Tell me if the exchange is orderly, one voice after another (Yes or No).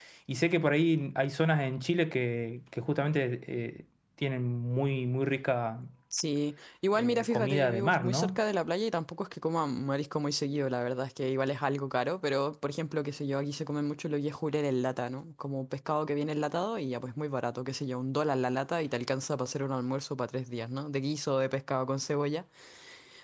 No